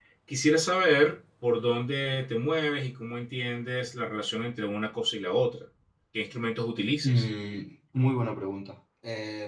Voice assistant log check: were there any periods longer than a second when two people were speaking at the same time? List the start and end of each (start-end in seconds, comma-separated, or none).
none